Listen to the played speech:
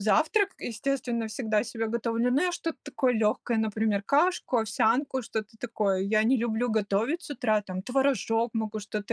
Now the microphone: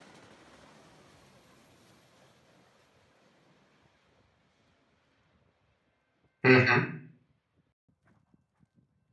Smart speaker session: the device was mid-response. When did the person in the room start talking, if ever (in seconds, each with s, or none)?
6.4 s